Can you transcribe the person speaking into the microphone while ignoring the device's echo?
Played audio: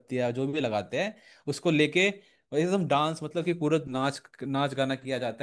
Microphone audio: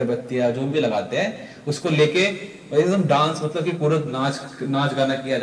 none

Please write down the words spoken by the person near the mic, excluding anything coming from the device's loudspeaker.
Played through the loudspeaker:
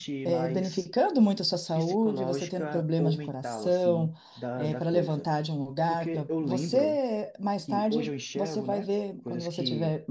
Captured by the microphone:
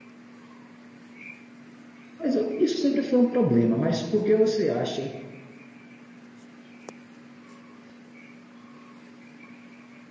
Mas eu- isso sempre foi um problema, mas por que você acha?

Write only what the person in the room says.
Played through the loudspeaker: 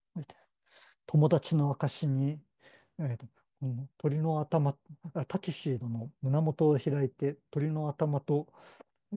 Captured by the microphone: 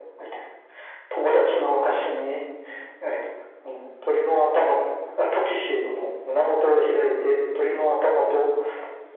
none

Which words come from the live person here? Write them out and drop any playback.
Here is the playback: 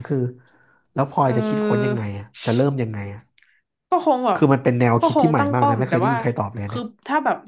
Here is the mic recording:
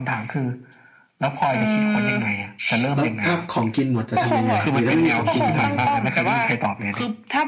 แล้วถ้าของกินหมดจะทำยังไงอะหรือถ้าไม่มีของกินจะทำยังไง

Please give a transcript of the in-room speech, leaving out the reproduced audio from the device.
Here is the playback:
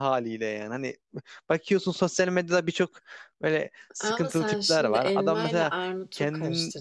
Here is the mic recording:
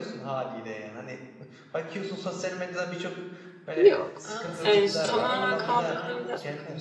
Yok. Yani tamamen kaldırdığında

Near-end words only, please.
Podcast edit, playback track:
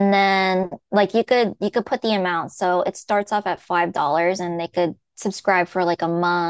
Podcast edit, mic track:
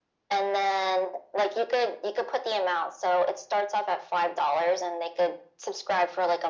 none

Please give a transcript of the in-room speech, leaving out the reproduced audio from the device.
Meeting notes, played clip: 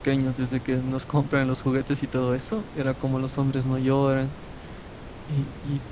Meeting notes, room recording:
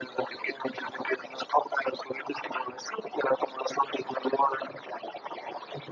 none

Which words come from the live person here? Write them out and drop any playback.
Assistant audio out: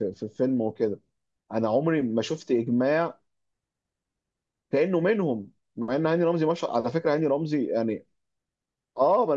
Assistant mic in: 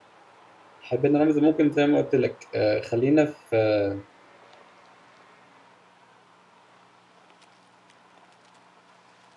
حبينا رمز ممكن زي ما قلت لك آه، خلينا في آه،

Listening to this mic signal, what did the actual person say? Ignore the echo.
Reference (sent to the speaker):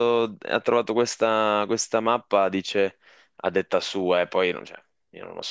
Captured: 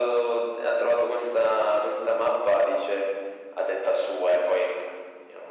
none

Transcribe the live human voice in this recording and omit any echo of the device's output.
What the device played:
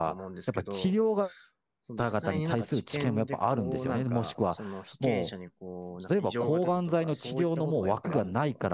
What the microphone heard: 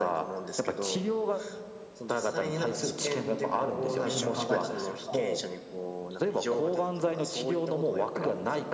一瞬考えたんですよ。

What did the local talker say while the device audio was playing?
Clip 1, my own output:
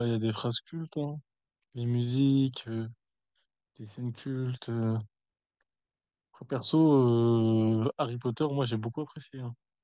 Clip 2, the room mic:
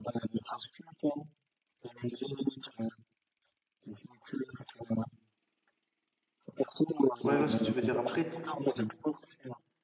Ouais, je vois ce que tu veux dire. Après,

